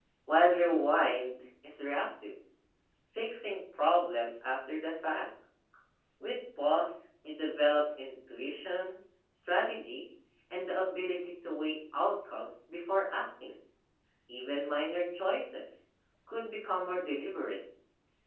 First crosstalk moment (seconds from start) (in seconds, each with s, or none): none